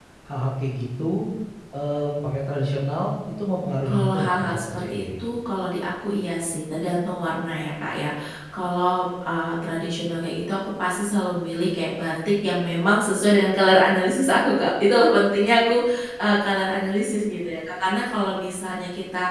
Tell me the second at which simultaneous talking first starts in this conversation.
4 s

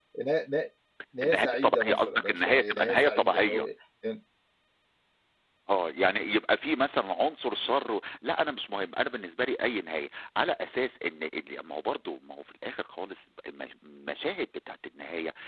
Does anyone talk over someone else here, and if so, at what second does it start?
1 s

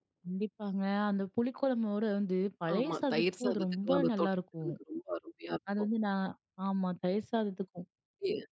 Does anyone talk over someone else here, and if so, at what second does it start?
3 s

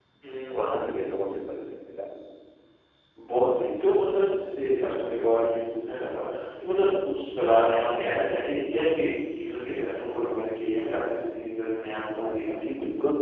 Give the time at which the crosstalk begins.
none

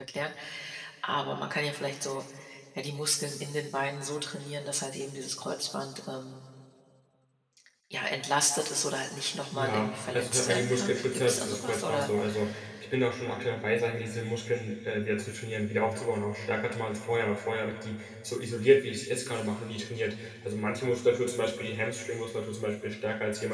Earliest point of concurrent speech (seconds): 9 s

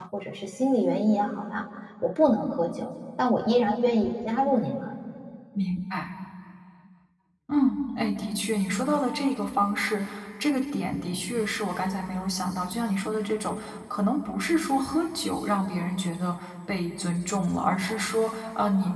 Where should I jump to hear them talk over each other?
none

